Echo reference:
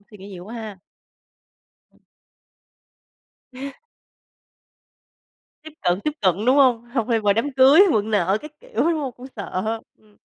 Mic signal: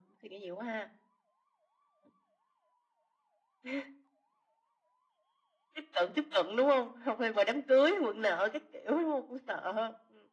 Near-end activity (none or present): none